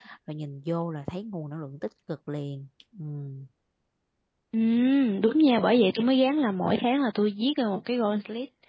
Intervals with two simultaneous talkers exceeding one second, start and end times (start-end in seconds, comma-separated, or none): none